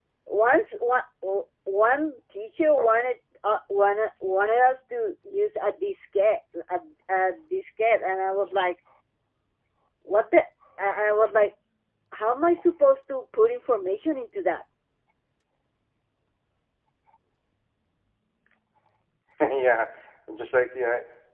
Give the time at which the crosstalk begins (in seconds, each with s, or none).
none